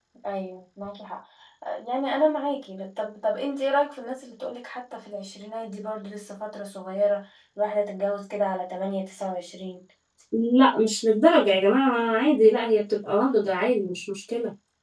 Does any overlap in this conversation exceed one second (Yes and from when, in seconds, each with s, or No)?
No